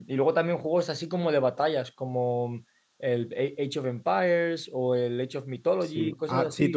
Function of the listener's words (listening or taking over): taking over